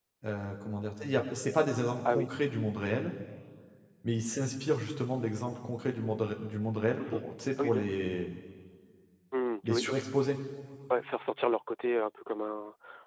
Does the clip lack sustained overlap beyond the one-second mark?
Yes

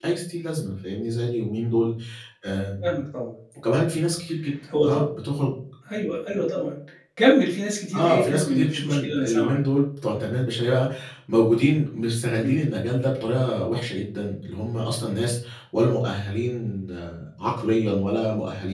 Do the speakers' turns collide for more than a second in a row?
Yes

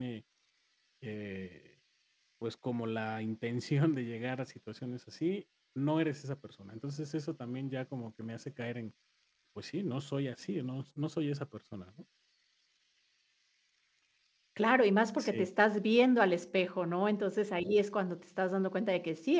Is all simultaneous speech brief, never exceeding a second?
Yes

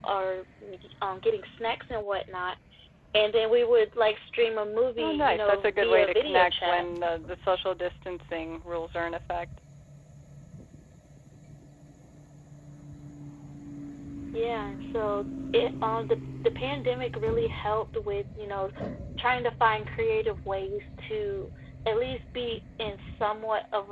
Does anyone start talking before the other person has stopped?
Yes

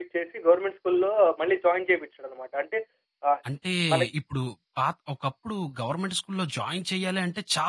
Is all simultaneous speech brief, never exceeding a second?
Yes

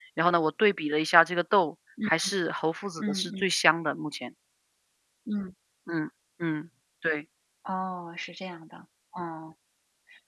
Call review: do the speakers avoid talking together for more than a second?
Yes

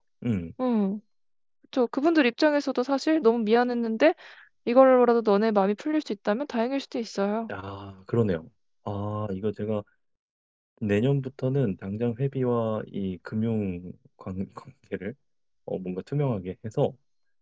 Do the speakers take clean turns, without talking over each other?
Yes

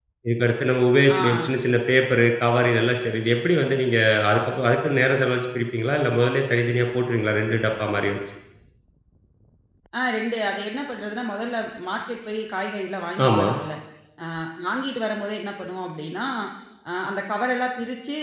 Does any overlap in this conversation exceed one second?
No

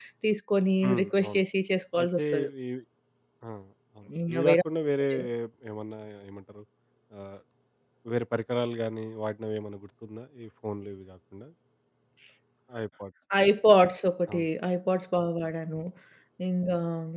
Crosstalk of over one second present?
No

